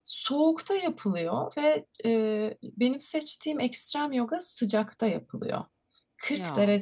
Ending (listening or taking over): listening